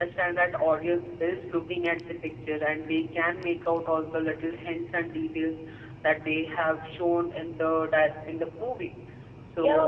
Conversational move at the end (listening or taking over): taking over